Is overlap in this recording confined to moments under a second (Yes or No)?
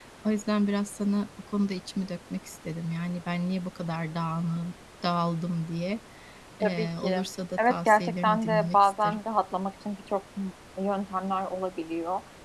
No